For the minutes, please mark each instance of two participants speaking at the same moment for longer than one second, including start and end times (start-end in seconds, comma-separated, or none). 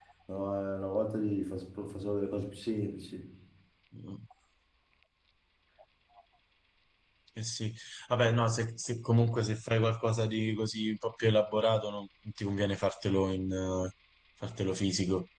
none